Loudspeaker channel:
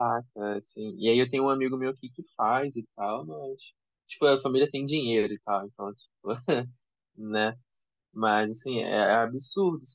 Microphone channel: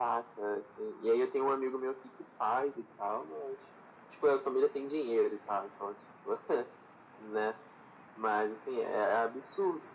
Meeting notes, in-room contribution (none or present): none